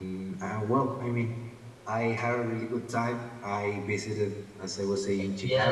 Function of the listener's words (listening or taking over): taking over